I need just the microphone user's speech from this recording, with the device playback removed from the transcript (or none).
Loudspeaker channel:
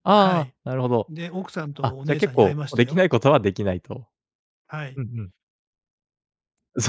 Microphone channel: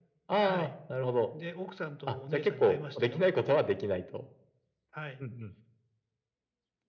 none